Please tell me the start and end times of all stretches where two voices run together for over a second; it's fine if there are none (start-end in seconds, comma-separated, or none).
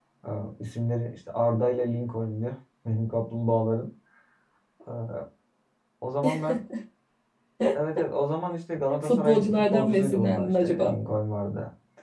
9.0-10.9